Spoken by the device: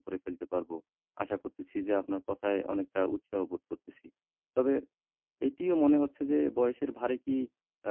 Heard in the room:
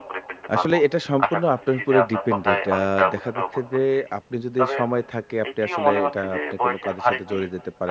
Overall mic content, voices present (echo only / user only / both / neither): both